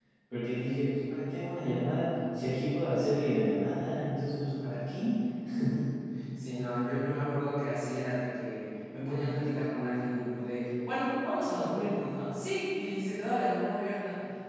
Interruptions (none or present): none